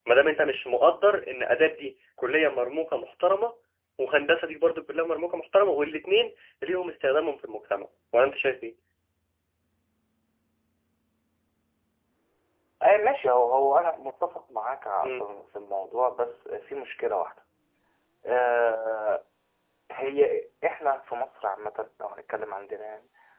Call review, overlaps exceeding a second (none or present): none